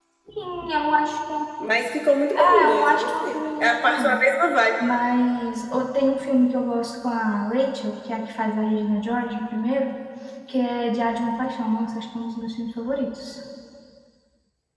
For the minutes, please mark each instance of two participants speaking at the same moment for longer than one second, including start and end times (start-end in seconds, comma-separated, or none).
2.4-4.2